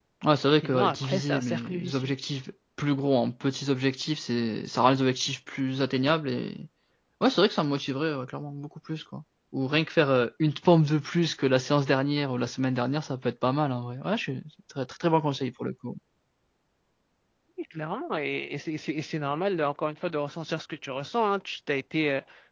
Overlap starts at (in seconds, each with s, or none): 0.6 s